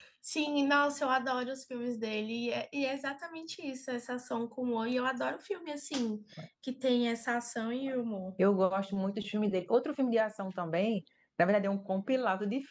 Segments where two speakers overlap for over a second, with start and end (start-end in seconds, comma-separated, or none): none